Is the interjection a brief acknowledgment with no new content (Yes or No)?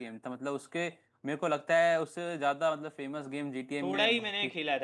No